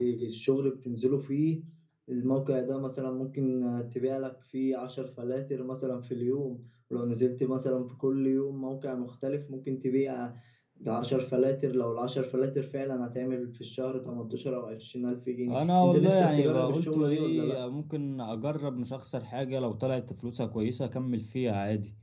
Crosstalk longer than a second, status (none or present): present